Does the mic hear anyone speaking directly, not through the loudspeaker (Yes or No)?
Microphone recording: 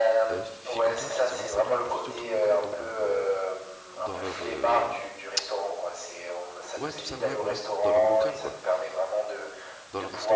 Yes